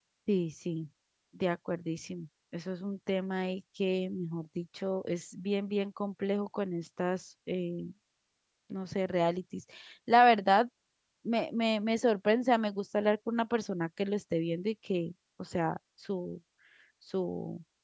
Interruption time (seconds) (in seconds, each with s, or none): none